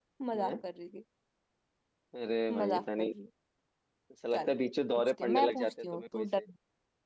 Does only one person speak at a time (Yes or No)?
No